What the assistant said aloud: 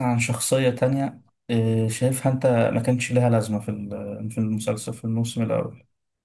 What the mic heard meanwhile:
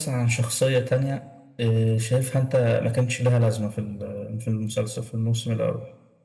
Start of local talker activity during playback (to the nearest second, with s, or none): none